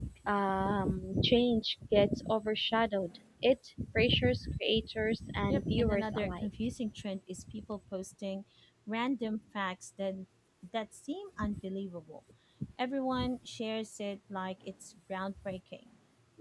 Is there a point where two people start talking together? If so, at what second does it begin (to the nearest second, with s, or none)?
5 s